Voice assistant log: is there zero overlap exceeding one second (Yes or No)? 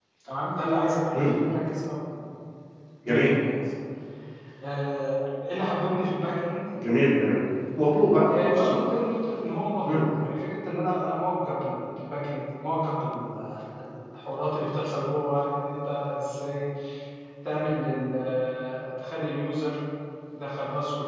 Yes